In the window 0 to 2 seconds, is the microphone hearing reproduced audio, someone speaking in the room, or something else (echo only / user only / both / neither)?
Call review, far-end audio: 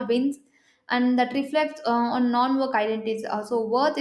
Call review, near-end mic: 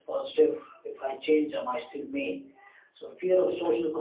user only